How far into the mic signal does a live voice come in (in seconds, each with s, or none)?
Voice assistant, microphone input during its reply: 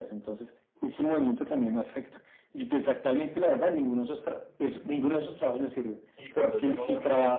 6.2 s